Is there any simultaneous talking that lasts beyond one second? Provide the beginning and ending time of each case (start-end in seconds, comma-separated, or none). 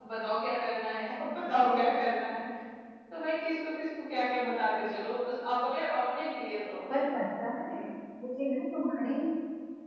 none